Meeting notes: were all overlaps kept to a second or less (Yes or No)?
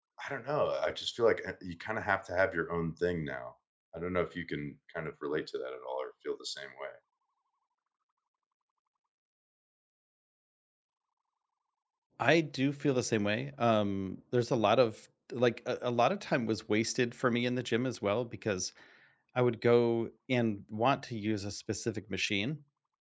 Yes